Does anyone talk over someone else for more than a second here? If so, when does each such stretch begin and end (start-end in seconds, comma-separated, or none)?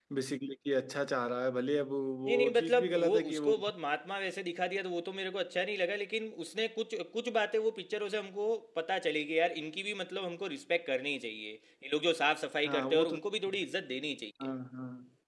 2.3-3.5